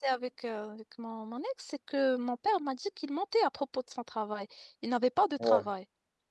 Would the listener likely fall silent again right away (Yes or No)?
Yes